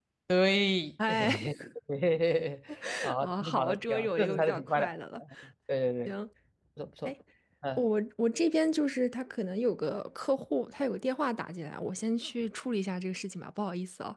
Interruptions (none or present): present